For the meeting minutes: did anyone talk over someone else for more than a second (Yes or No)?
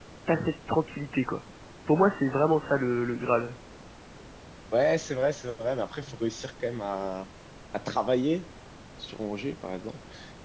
No